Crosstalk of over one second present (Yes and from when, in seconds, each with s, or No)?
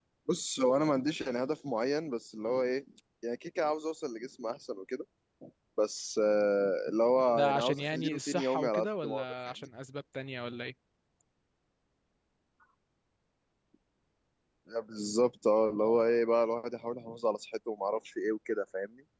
Yes, from 7.4 s